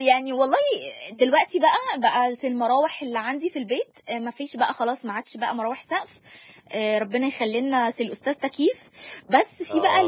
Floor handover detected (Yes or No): No